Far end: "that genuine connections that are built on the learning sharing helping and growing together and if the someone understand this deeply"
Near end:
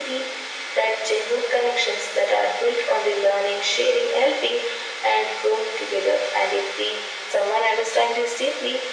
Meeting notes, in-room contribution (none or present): none